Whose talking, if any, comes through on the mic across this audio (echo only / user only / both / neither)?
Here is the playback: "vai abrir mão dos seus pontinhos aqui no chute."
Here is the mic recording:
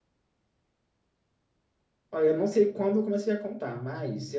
user only